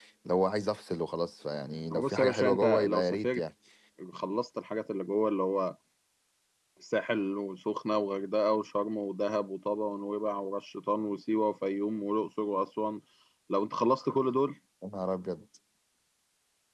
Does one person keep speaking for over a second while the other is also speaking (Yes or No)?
Yes